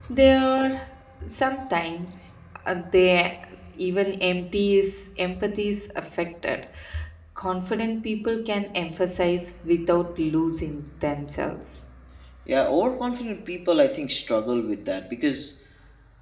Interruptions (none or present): none